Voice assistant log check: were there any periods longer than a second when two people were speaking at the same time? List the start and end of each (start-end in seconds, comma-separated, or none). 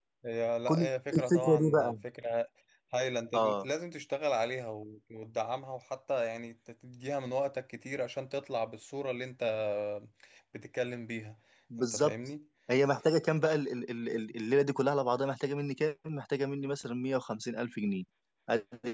0.7-1.9